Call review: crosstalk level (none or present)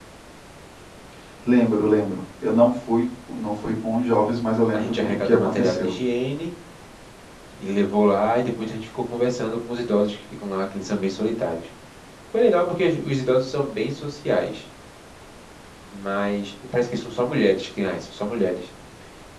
present